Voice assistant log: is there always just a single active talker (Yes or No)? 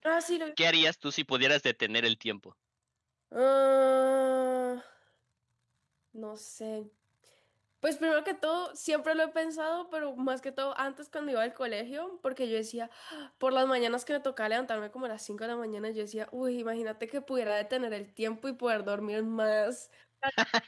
Yes